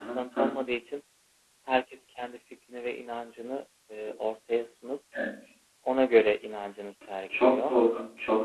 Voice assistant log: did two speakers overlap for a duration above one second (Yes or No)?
No